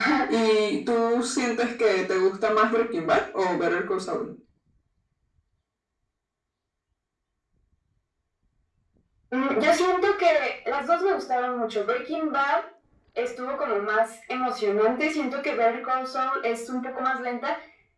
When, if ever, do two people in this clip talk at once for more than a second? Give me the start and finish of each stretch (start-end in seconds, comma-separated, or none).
none